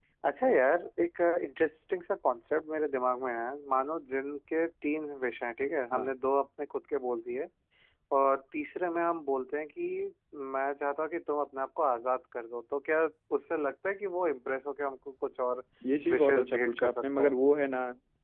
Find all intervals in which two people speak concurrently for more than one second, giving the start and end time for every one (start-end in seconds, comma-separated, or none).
16.1-17.4